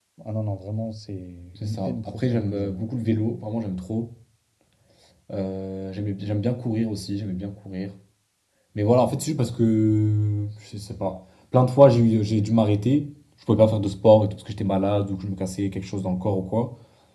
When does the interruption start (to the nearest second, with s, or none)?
2 s